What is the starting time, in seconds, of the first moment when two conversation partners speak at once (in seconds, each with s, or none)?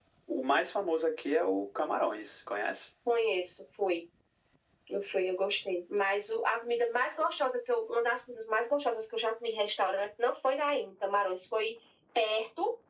none